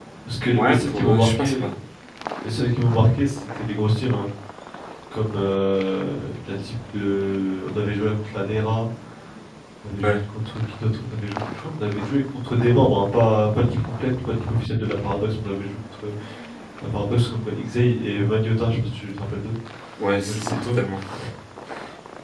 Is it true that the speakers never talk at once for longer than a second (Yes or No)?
No